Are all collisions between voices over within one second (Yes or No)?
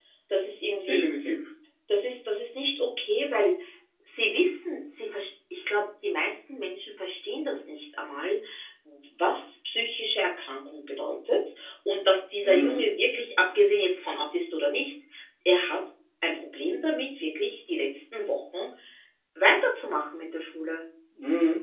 Yes